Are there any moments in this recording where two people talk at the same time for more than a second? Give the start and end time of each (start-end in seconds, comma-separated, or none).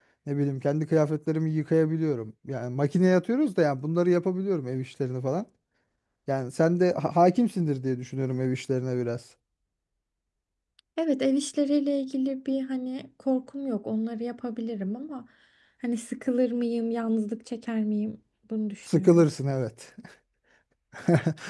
none